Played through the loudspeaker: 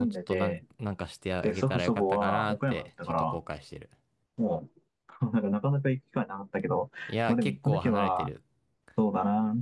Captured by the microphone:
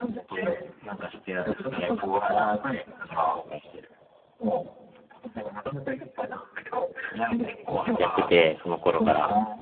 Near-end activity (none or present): present